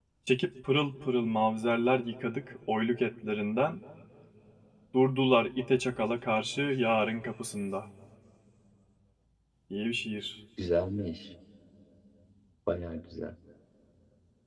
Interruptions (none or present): none